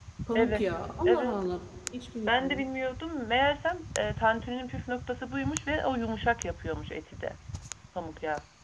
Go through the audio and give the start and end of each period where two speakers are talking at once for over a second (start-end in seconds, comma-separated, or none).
none